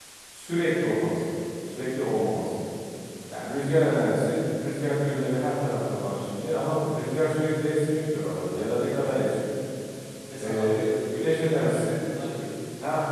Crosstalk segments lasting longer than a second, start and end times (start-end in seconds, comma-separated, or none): 10.4-11.8